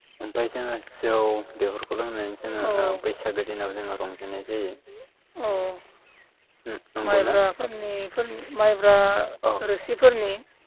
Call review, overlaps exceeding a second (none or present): none